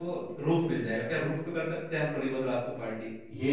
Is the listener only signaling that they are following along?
No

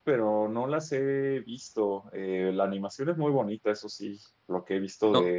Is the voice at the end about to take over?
No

